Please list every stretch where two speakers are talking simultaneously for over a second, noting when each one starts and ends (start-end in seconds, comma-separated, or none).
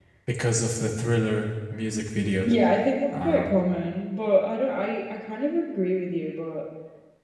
none